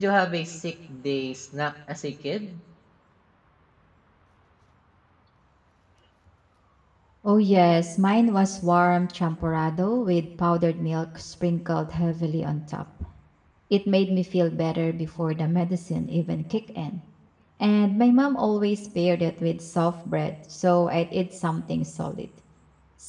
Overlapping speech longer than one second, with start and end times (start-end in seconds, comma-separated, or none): none